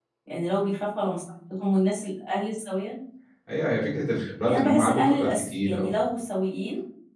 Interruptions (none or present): present